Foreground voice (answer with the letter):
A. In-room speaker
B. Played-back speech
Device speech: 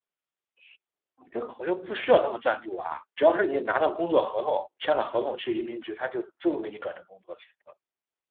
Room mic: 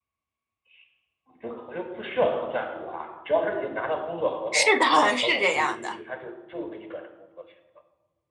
A